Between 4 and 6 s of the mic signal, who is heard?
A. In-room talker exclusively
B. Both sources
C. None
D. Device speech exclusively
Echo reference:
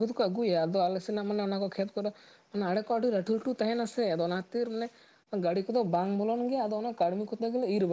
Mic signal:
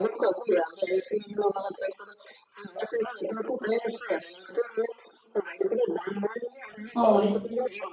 D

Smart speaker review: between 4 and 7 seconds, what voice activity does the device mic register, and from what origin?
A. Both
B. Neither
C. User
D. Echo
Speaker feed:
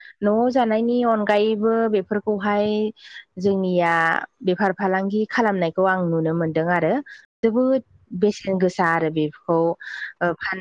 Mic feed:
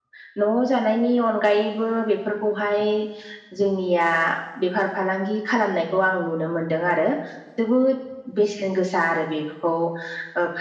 D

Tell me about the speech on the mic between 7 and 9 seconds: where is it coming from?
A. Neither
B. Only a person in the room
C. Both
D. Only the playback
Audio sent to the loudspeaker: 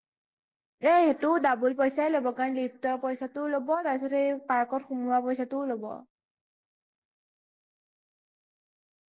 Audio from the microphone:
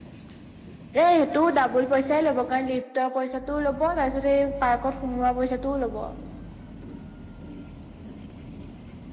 A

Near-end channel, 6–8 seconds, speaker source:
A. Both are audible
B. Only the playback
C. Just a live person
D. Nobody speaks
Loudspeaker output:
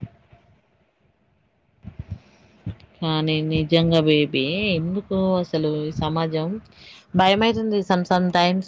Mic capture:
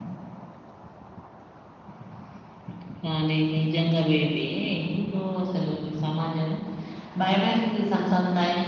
B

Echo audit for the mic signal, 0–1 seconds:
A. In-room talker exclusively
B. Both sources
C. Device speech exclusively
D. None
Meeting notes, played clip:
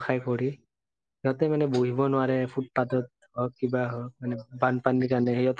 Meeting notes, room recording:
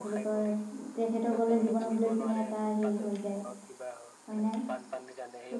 B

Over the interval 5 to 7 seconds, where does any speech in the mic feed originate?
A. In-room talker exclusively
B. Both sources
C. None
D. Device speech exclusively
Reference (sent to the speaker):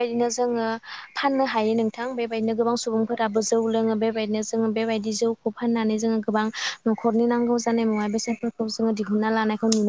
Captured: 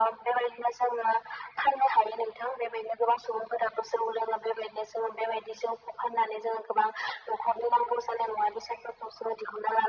D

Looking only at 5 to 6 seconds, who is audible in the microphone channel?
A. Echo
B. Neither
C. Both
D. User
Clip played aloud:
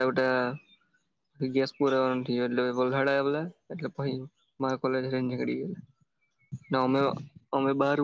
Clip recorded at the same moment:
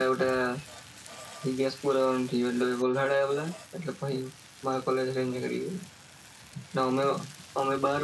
A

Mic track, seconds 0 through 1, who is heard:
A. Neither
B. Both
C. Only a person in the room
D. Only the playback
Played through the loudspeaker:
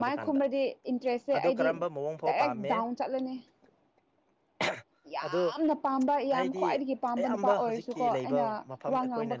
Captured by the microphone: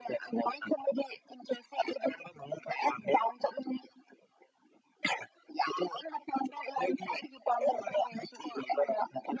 D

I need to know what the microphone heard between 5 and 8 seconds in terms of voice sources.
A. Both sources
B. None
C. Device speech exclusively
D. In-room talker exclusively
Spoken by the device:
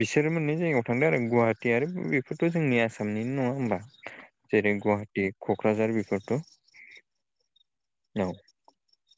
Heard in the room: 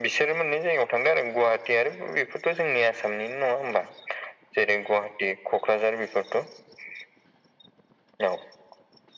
C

